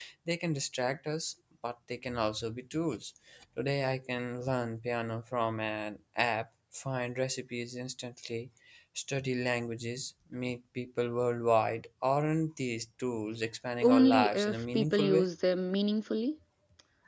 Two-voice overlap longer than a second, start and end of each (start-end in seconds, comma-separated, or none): 13.8-15.3